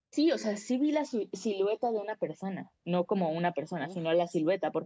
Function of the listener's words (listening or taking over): listening